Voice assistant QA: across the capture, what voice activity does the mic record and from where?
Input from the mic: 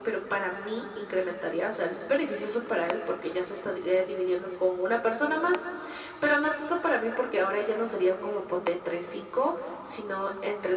echo only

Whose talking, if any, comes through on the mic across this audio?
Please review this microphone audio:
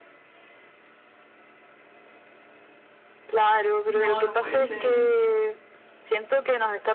both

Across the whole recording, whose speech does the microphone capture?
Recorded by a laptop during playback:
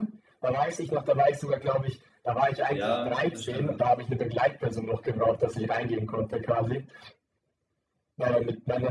both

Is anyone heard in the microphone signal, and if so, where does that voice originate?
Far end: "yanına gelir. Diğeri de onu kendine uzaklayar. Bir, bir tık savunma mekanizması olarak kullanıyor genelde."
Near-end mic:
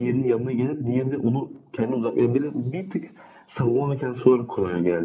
echo only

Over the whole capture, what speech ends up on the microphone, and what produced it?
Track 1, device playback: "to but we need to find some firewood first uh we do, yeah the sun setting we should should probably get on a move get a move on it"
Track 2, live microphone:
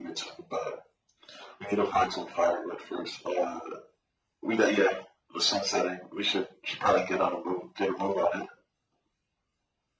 echo only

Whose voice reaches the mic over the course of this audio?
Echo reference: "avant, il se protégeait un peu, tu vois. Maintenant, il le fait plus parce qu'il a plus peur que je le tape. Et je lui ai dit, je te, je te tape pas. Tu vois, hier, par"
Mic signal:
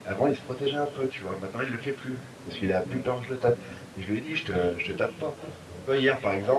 echo only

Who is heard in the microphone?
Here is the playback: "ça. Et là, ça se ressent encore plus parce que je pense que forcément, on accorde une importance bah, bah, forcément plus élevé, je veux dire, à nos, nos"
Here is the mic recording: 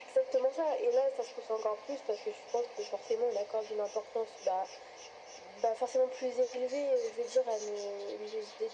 echo only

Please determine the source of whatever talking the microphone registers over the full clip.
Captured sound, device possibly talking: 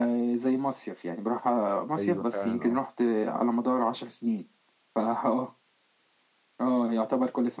both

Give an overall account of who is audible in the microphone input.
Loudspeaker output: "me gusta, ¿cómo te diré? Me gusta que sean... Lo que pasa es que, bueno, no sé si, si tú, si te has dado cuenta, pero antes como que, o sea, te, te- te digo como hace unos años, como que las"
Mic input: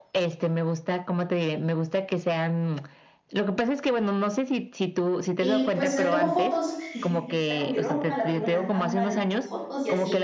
both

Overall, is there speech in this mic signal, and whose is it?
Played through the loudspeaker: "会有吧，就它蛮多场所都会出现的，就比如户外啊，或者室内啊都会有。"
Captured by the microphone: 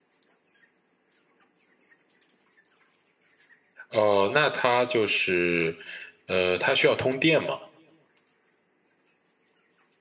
user only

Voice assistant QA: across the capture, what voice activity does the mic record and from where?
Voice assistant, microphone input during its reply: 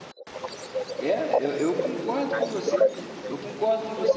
both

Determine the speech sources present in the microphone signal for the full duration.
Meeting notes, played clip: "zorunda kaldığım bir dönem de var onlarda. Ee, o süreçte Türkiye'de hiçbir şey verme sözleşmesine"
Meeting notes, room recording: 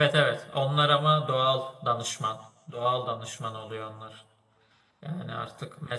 user only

